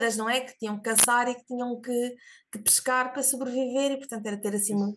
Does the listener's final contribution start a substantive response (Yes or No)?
No